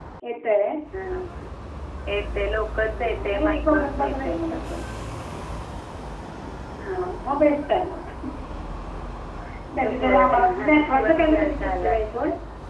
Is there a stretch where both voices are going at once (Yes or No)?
Yes